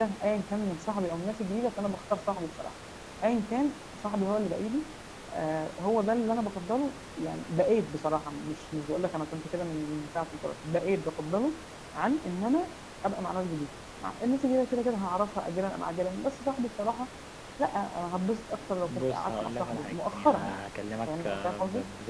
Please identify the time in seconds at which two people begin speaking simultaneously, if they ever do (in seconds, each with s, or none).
18.8 s